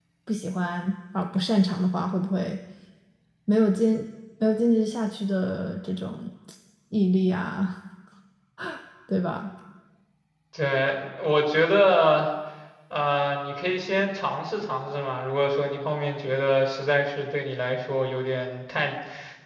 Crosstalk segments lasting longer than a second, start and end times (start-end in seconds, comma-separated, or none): none